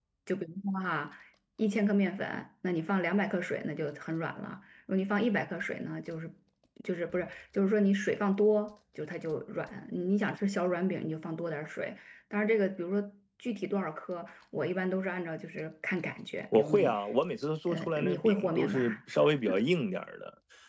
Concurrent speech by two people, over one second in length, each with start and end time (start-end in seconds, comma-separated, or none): 17.7-19.0